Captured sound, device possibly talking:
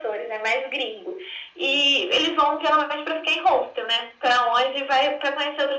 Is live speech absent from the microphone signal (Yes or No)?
Yes